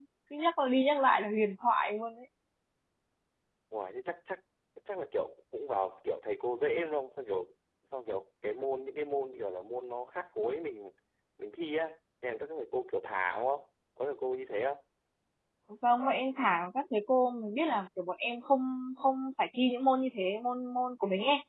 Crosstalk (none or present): none